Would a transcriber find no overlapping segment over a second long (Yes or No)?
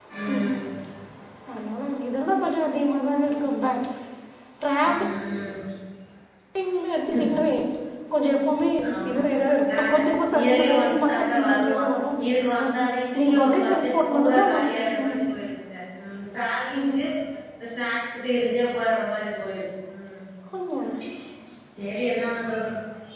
No